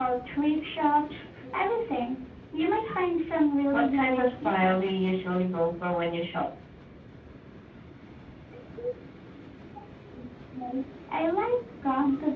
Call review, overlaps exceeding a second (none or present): present